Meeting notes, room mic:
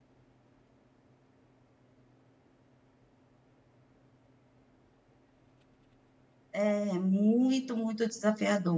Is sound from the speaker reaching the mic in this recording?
No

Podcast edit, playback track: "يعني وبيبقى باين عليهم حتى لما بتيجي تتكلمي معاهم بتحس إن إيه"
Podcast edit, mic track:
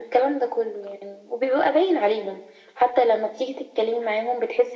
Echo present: Yes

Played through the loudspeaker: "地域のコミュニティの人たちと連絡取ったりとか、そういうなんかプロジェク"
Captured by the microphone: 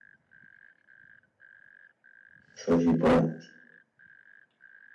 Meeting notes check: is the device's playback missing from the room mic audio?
Yes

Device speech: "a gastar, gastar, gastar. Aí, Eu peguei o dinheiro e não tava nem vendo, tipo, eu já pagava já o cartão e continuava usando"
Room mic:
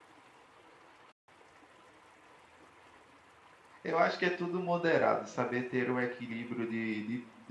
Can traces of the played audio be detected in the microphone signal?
No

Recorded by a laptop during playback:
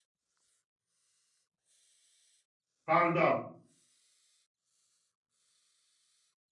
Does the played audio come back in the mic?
No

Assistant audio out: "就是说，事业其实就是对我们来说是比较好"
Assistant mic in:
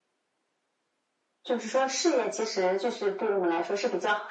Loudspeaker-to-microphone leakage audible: Yes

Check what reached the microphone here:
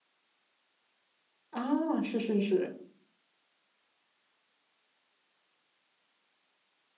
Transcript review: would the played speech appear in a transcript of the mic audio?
No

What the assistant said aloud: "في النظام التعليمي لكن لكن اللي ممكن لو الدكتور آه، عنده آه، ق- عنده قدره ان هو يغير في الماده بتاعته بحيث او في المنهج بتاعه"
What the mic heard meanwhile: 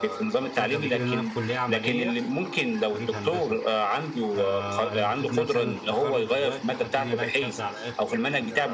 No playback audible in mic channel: No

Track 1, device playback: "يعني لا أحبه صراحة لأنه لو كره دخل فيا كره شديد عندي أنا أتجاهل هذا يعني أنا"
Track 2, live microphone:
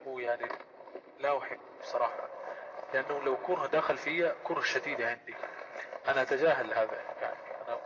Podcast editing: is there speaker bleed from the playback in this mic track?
Yes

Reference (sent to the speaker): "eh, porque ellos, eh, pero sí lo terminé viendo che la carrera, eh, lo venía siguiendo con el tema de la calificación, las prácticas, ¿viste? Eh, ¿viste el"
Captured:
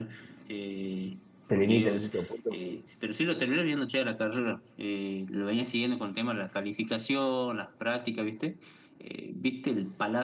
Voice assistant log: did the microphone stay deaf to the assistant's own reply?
No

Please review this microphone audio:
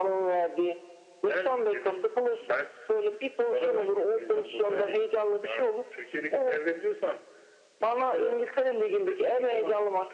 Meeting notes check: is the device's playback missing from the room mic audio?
No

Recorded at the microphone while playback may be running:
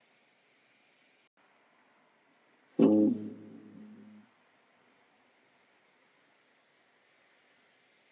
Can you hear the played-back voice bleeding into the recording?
No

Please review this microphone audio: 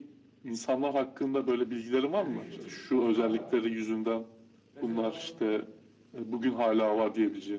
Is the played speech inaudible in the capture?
No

